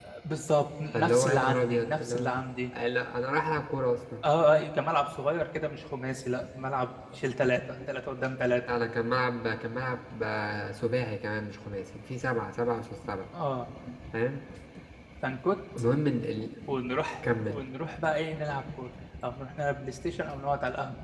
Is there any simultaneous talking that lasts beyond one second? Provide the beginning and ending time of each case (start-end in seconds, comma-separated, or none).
0.9-2.3